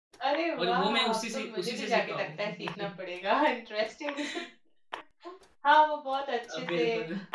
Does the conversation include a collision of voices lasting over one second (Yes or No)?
Yes